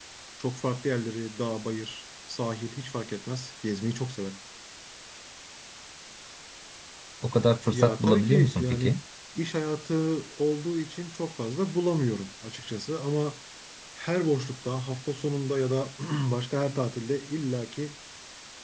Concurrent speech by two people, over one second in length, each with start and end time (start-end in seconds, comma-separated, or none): 7.7-9.0